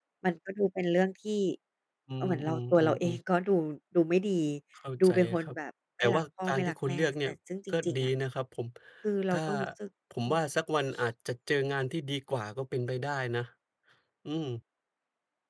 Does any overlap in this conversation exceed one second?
Yes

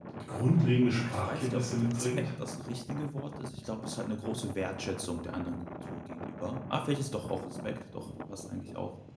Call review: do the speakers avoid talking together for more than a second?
No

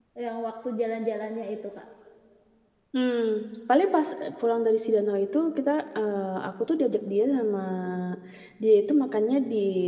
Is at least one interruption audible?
No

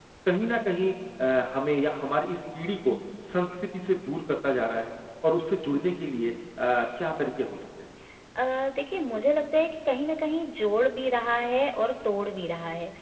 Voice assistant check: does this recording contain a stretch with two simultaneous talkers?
No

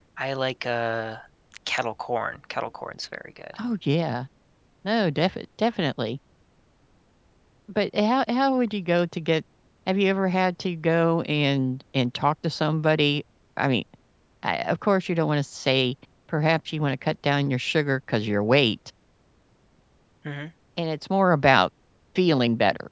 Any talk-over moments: No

